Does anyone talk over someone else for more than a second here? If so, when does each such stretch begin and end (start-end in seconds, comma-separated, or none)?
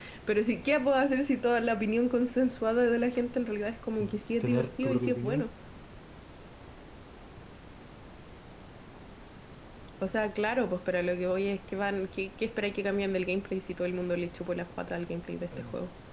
4.0-5.5